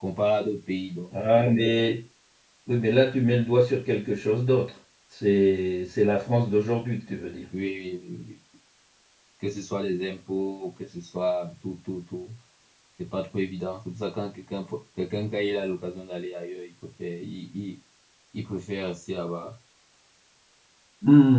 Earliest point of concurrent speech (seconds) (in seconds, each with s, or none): none